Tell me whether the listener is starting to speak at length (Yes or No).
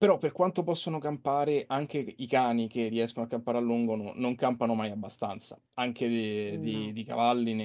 No